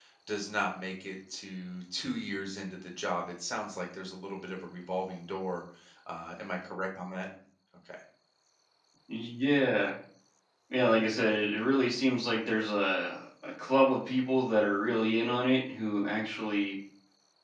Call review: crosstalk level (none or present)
none